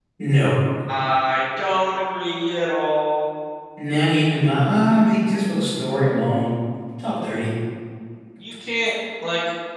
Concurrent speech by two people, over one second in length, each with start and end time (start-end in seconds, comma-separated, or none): none